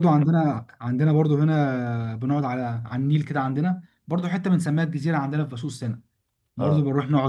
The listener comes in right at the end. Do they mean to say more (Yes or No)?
No